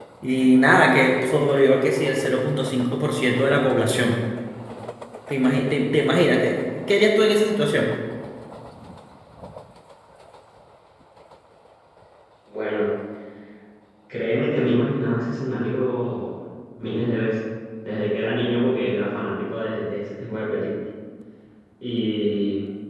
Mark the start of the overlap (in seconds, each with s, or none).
none